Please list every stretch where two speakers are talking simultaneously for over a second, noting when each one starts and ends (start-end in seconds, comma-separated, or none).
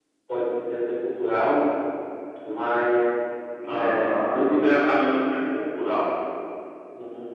3.7-5.2